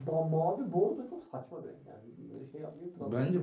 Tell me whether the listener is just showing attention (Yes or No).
No